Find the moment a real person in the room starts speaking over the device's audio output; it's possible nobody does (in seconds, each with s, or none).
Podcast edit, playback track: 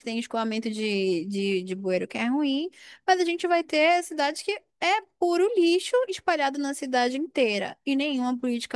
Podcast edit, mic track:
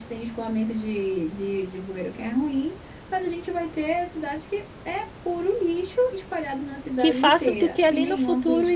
7.0 s